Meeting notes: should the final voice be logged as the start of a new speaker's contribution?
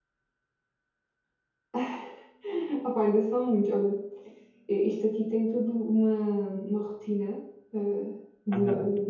No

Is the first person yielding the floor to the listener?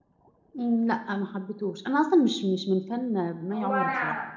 Yes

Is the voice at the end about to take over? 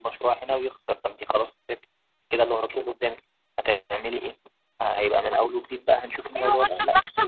Yes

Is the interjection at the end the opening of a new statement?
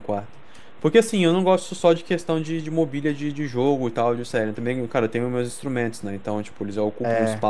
No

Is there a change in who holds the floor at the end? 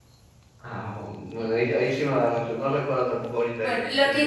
Yes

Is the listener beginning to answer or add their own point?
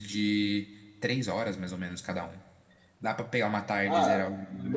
Yes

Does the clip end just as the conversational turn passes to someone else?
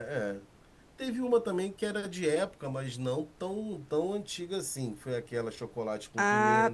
Yes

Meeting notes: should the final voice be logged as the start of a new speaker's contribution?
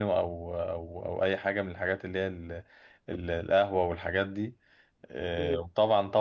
No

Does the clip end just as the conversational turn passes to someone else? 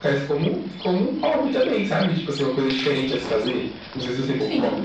Yes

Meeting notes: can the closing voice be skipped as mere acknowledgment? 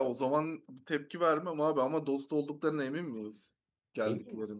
No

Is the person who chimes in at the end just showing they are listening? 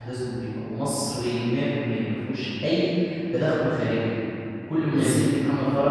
Yes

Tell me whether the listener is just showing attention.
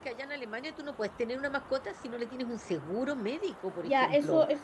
No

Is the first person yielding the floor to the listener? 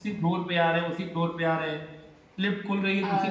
No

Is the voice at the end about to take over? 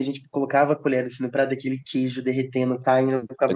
Yes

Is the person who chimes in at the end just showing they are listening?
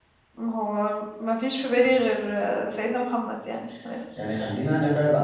No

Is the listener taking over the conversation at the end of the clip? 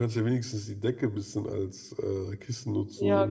Yes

